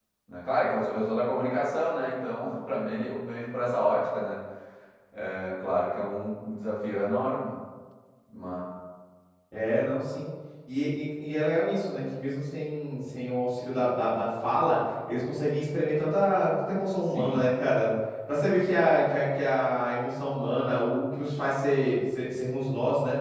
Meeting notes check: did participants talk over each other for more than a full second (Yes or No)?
No